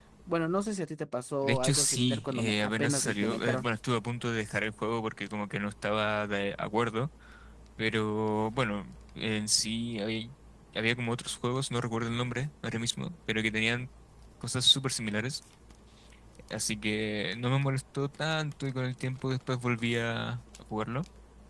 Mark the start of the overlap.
1.4 s

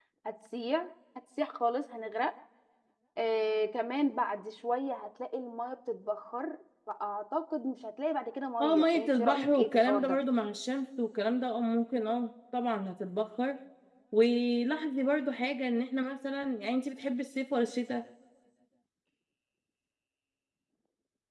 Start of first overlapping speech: 8.6 s

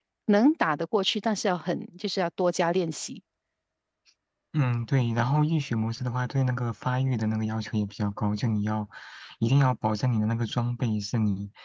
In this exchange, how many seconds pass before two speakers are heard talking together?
none

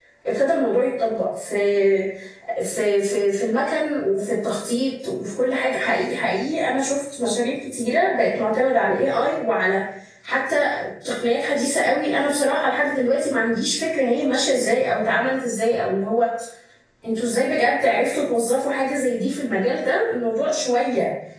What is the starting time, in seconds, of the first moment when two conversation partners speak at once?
none

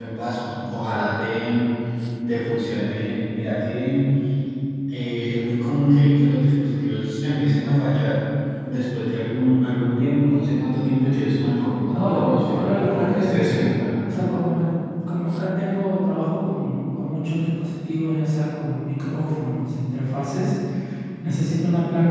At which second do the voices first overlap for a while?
11.9 s

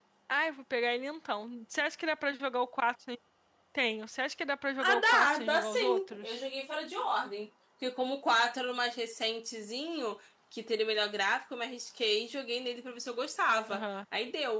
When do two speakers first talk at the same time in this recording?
4.8 s

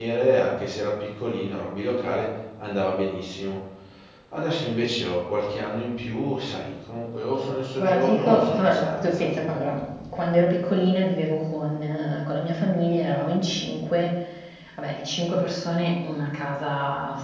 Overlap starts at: 7.8 s

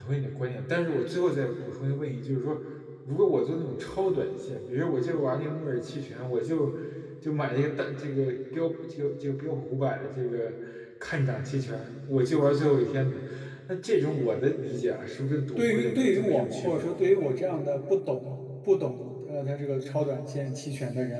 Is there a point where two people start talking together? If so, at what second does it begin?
15.6 s

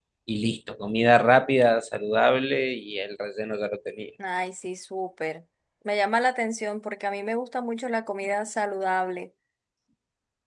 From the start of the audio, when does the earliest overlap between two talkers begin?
none

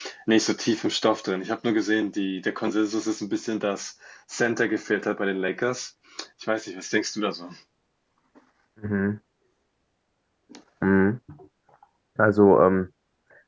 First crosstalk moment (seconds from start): none

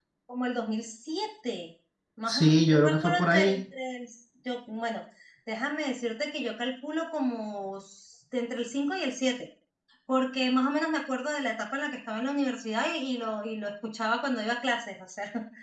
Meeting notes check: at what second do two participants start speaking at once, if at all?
2.3 s

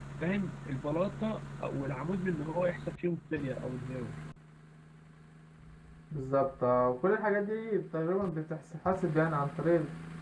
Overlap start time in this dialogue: none

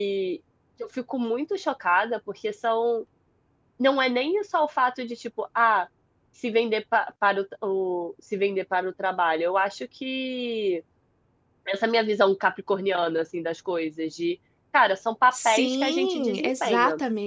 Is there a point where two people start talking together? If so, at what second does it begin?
15.3 s

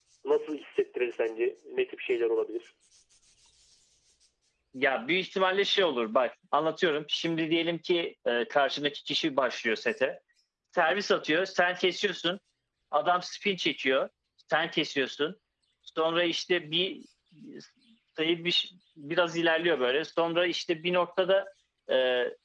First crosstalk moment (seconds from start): none

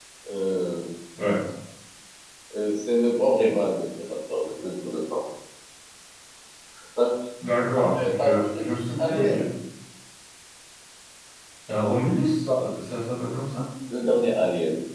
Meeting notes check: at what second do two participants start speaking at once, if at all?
7.8 s

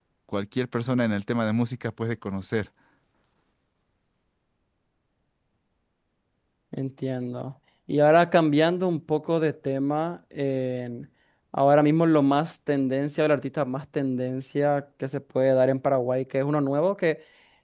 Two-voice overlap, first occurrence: none

